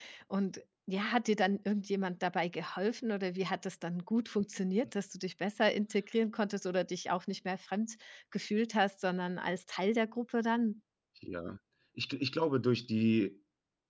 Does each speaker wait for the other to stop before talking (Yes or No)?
Yes